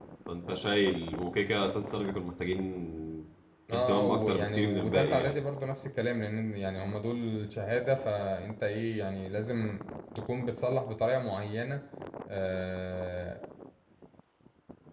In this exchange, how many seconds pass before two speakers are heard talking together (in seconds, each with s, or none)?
3.7 s